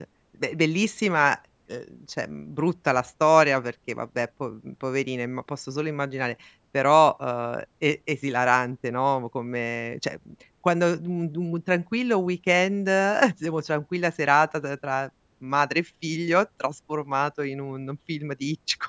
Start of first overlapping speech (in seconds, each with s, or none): none